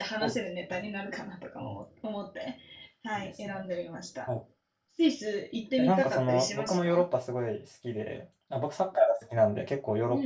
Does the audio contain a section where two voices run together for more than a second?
Yes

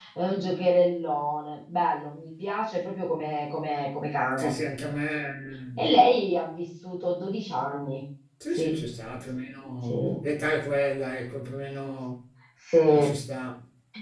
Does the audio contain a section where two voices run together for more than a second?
No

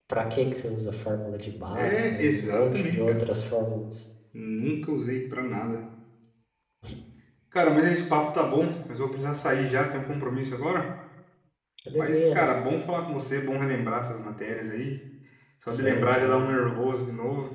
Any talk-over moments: Yes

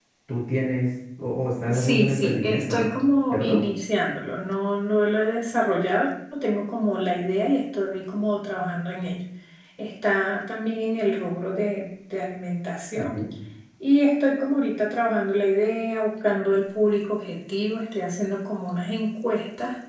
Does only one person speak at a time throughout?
No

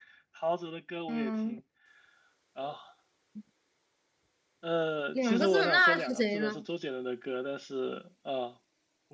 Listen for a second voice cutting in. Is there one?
Yes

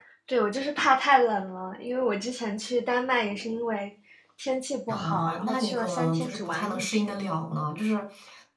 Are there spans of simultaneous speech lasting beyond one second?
Yes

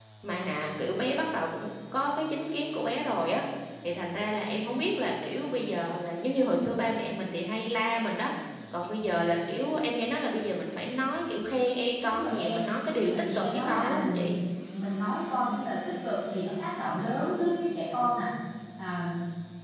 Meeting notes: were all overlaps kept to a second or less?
No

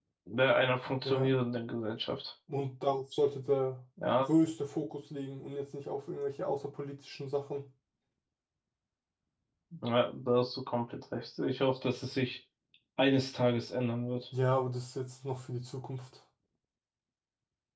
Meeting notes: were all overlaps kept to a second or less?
Yes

